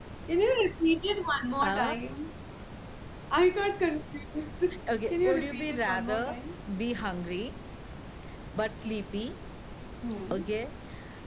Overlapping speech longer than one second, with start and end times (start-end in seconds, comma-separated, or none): 5.1-6.3